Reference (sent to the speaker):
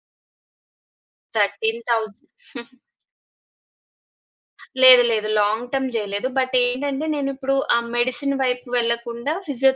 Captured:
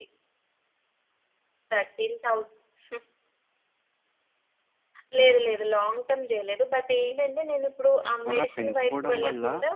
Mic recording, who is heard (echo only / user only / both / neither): both